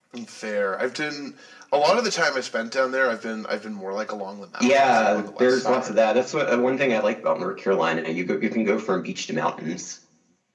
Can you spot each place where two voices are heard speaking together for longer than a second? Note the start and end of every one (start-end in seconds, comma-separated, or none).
4.6-5.9